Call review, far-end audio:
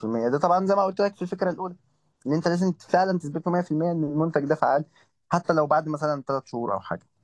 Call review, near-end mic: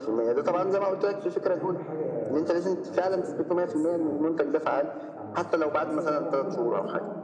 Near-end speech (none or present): present